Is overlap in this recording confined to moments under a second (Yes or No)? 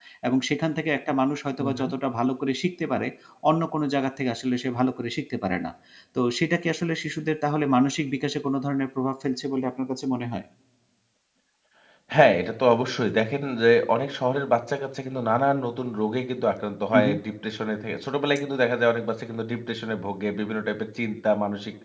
Yes